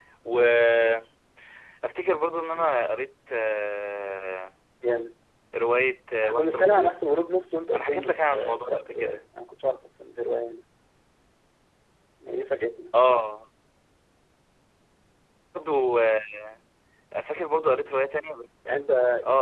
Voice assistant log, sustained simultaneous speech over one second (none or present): present